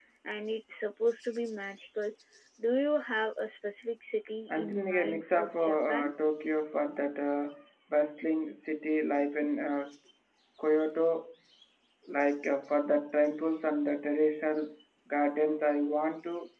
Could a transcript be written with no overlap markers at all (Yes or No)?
No